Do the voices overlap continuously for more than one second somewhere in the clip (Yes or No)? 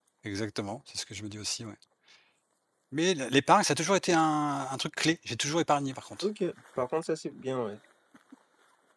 No